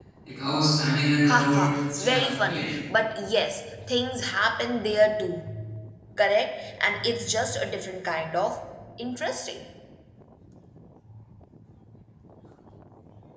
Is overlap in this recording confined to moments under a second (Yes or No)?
No